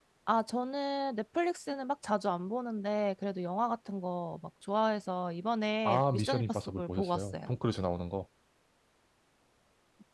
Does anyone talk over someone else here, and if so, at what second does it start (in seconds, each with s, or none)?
5.8 s